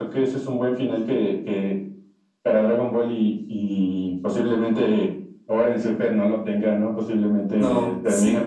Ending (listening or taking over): listening